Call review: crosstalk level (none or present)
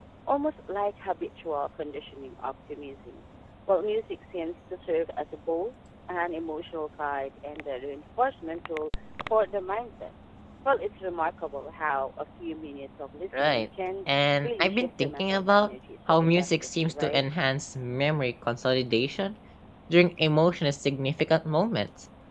present